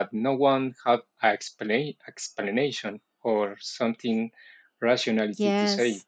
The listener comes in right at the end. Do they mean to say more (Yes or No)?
Yes